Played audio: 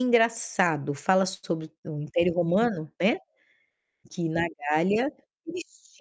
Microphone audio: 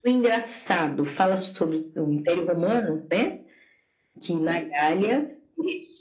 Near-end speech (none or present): none